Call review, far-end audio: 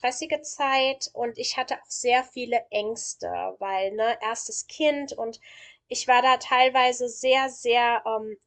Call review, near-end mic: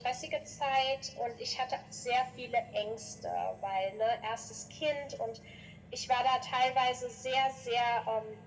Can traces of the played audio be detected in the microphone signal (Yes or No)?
Yes